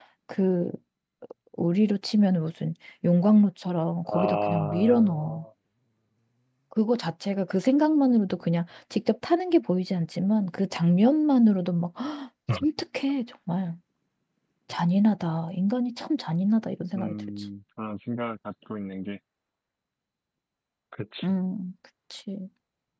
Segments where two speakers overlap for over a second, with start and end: 4.1-5.4

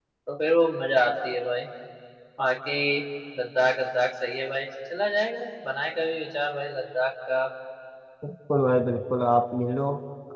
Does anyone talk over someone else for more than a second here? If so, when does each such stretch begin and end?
none

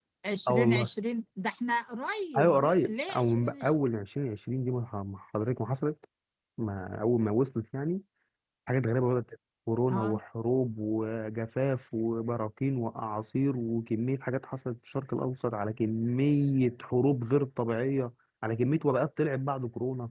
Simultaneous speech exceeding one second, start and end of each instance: 2.4-3.7

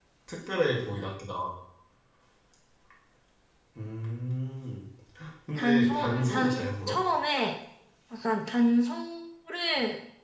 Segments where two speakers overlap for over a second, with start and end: 5.5-7.0

